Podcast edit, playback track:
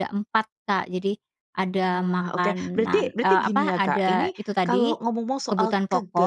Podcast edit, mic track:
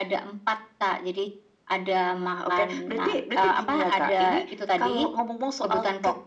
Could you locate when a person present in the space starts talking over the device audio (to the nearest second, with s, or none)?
none